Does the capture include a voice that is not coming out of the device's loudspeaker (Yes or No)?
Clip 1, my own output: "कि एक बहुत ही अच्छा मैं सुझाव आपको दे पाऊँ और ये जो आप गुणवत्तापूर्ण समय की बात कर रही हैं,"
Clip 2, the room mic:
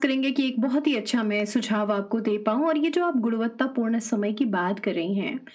No